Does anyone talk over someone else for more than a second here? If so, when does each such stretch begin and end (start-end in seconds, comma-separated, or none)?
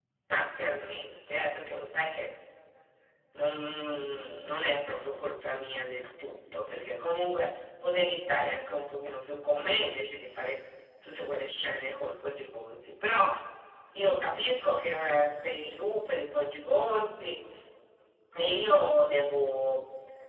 none